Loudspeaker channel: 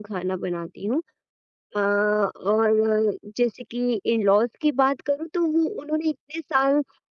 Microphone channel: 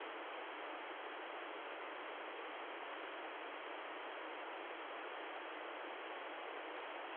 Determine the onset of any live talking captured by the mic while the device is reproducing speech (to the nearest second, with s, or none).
none